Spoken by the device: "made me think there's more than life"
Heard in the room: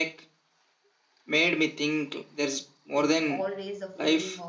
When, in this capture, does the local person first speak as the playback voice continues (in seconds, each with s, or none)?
3.0 s